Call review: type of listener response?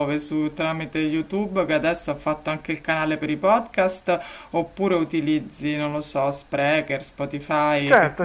taking over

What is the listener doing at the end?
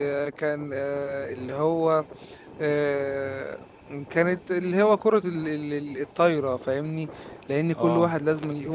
listening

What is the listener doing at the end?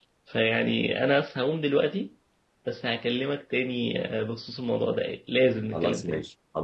taking over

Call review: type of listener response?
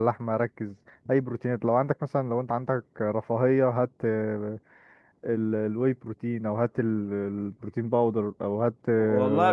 taking over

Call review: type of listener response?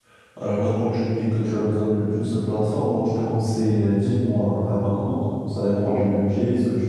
listening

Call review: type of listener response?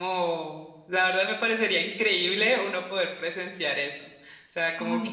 listening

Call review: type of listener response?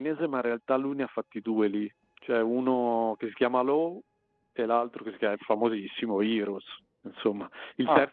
listening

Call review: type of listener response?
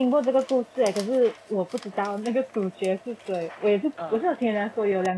listening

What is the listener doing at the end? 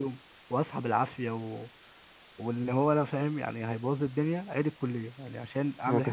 taking over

